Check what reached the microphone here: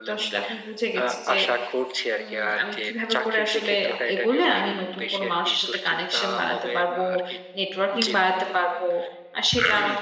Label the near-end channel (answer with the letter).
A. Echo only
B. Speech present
B